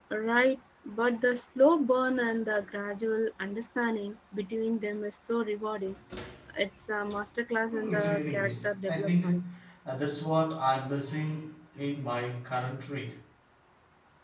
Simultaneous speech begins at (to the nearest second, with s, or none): 8 s